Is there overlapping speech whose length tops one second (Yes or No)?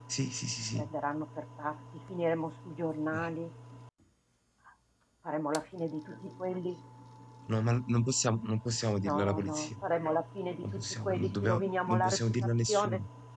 Yes